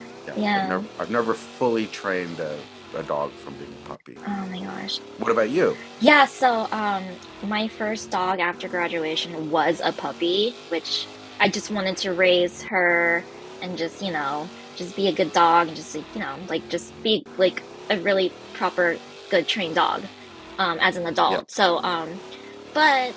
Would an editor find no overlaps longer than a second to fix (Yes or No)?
Yes